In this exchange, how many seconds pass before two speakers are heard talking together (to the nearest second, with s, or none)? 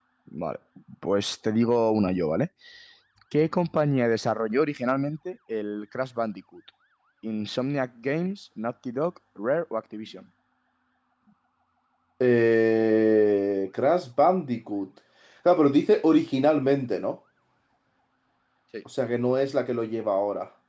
none